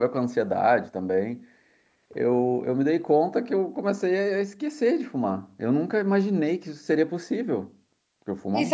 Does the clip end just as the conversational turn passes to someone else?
Yes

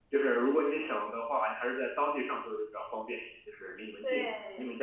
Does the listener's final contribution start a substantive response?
Yes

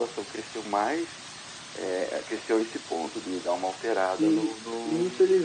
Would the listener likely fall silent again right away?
No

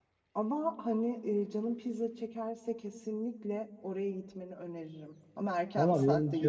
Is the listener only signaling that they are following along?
No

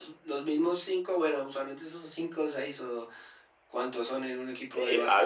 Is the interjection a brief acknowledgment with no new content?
No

